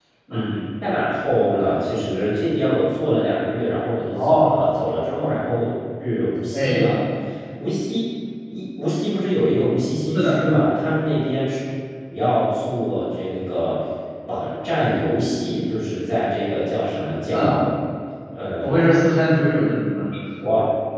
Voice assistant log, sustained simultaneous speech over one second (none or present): none